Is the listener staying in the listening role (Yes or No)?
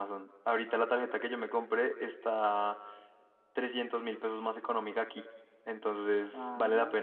No